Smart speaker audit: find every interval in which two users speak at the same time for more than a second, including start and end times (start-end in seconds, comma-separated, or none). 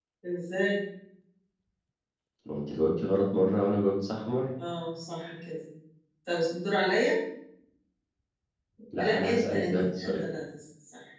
9.0-10.3